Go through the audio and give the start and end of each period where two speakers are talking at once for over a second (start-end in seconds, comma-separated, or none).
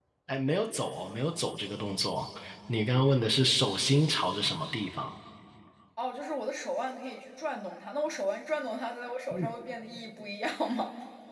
none